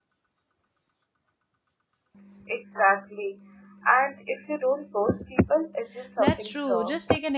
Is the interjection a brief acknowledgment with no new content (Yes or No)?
No